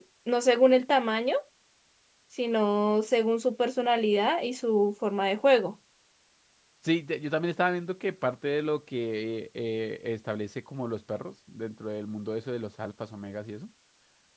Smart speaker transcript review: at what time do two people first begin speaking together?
none

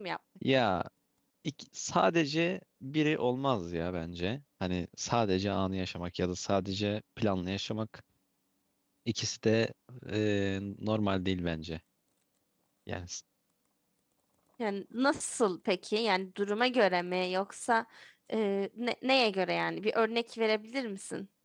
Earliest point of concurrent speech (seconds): none

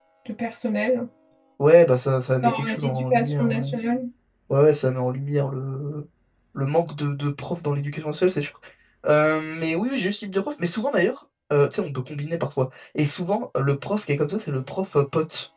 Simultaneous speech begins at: 2 s

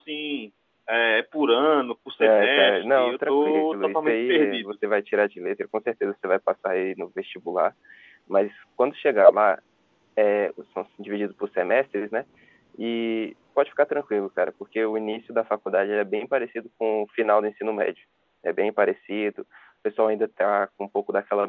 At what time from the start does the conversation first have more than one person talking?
2 s

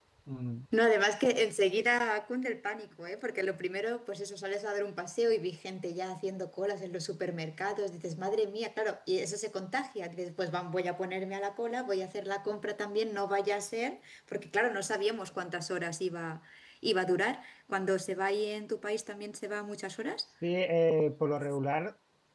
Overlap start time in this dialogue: none

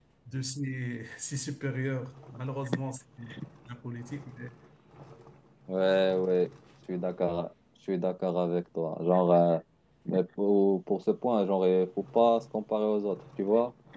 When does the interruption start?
none

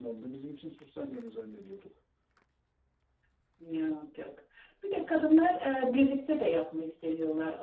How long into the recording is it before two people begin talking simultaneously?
none

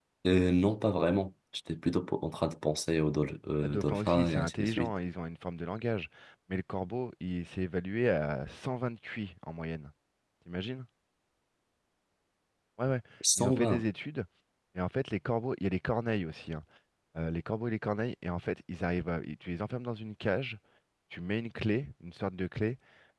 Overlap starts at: 4 s

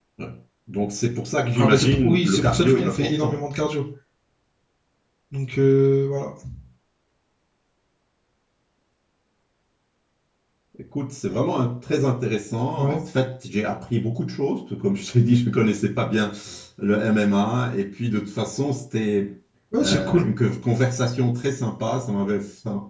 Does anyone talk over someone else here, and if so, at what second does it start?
2 s

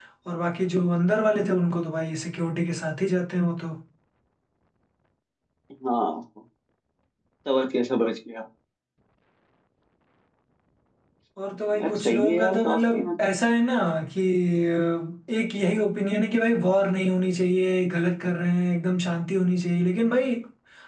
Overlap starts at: 12 s

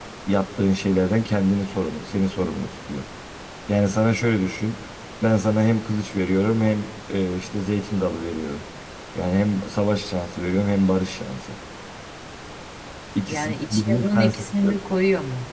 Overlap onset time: 13 s

